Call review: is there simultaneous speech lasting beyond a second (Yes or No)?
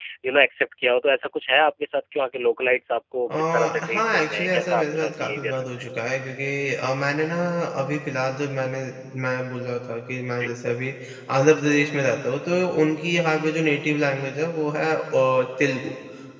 Yes